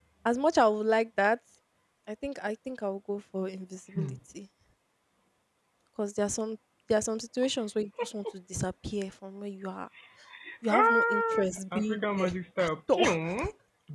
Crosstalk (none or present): present